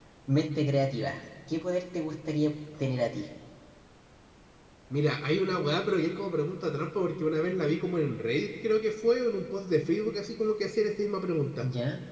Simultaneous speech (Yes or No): No